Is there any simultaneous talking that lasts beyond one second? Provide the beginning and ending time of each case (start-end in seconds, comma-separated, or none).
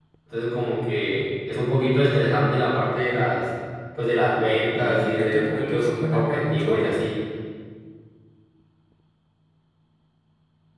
4.7-7.0